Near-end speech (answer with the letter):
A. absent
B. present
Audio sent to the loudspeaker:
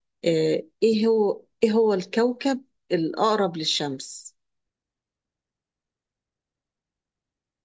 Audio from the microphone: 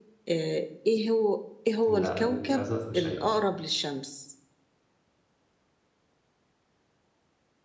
B